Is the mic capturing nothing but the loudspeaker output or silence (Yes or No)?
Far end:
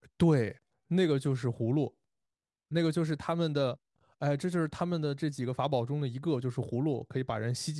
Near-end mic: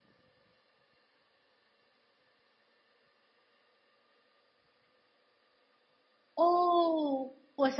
No